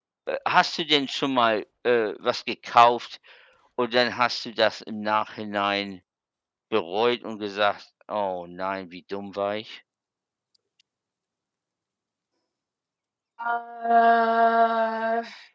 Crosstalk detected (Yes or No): No